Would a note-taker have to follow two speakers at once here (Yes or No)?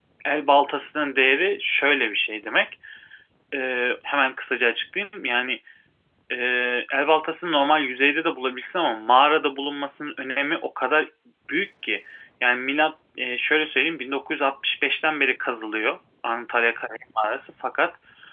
No